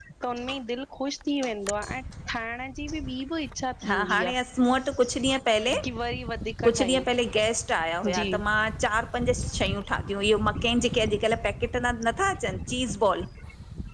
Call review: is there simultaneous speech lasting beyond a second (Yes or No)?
No